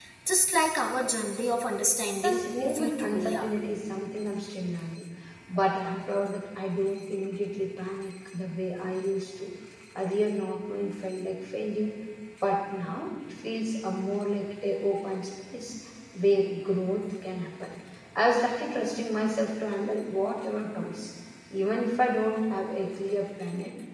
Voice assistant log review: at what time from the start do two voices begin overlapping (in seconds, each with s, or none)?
2.2 s